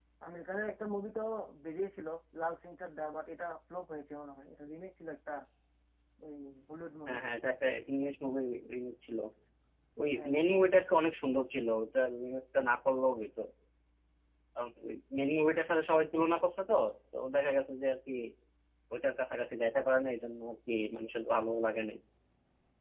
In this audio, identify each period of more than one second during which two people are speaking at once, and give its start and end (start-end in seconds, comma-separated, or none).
none